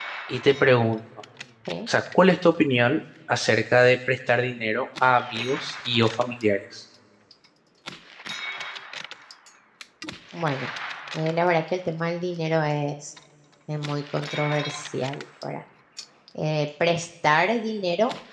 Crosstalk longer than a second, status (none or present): none